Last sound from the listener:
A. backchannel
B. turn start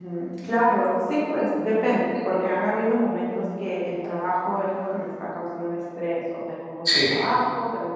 A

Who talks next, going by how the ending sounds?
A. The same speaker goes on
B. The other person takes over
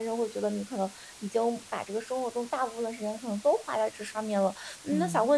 A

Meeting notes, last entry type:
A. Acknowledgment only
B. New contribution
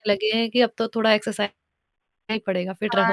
B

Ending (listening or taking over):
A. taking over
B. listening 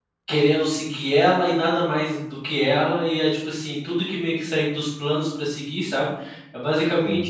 B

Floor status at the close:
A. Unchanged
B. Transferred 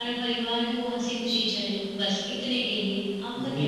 B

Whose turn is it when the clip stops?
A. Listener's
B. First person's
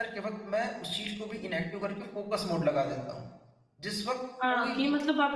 A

